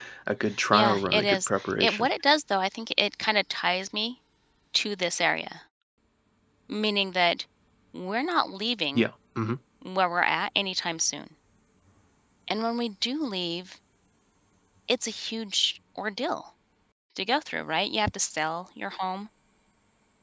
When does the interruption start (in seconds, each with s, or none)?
0.7 s